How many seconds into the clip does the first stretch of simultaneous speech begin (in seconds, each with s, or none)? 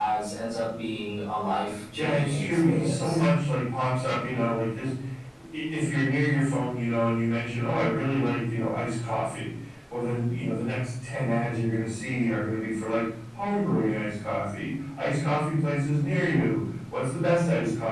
1.9 s